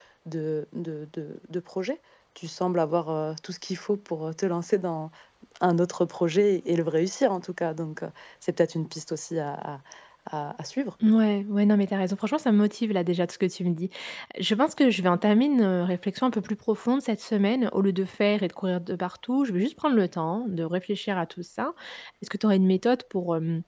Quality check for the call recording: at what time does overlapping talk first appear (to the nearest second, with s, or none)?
none